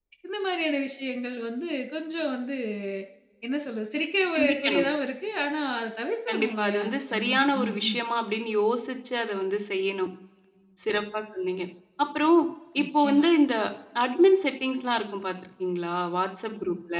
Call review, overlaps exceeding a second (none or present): present